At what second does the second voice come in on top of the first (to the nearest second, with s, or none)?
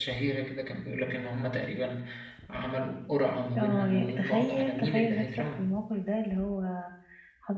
4 s